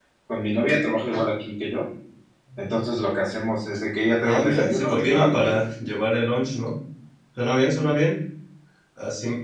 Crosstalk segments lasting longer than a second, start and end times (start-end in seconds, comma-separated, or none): 4.2-5.6